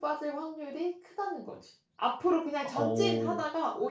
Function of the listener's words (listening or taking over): listening